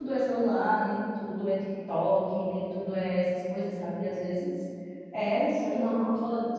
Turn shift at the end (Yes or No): No